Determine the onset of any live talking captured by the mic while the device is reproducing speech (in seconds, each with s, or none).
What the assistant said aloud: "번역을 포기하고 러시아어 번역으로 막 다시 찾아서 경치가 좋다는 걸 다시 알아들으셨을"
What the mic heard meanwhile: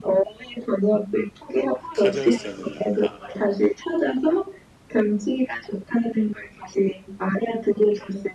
1.9 s